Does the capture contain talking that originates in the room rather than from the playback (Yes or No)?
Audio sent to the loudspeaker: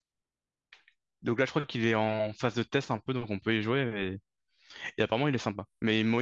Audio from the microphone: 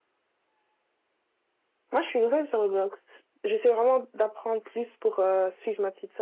Yes